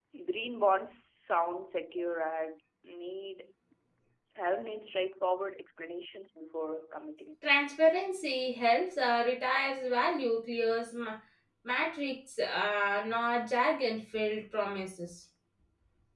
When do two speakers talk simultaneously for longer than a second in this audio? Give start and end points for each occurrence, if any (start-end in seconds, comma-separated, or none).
none